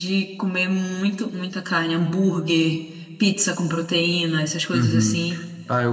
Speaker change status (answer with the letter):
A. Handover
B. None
A